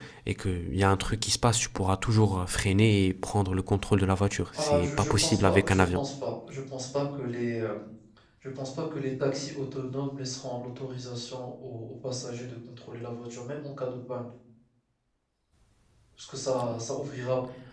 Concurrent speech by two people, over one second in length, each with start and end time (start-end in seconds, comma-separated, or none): 4.5-6.0